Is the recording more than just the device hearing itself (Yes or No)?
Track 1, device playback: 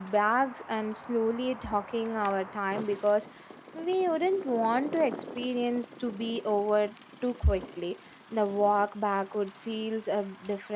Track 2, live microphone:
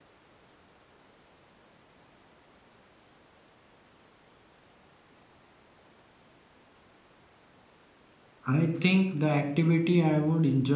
Yes